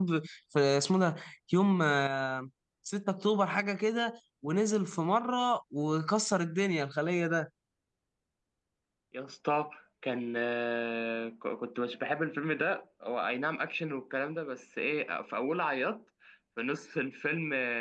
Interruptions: none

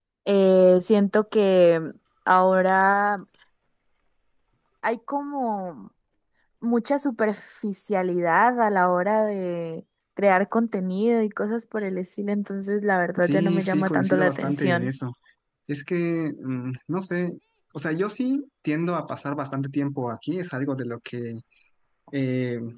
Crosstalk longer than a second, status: present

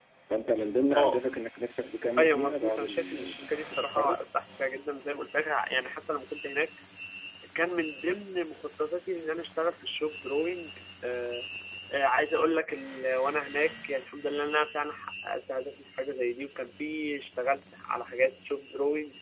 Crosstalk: present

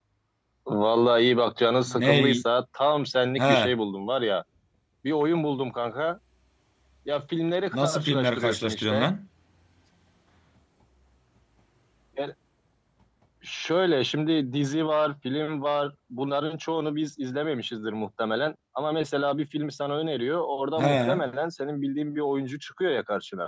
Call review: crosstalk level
present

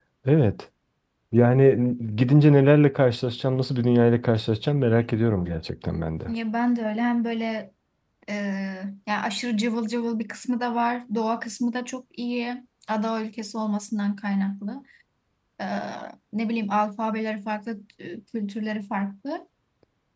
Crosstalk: none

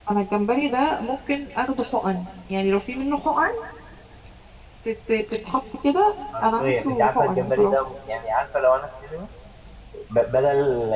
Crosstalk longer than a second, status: present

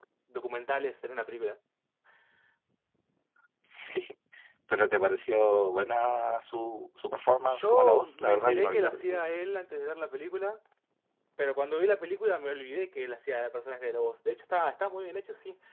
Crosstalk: present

